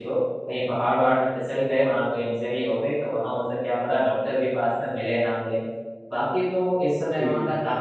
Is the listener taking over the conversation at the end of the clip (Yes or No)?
No